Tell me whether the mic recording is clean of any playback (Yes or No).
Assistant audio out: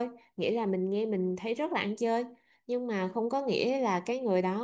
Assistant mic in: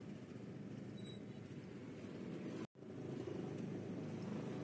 Yes